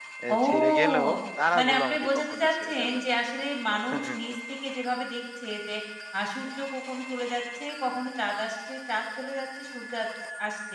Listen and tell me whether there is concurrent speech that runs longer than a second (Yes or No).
Yes